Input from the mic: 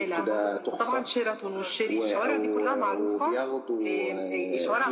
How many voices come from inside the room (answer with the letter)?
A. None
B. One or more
B